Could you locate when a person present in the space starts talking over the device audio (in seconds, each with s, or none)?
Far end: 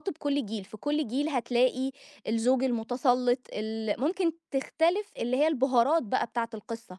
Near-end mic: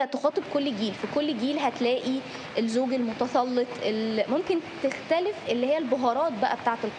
none